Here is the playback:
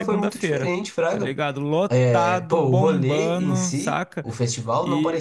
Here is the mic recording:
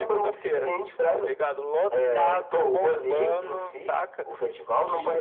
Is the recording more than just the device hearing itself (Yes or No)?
No